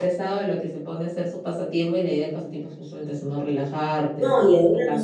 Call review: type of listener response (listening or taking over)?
taking over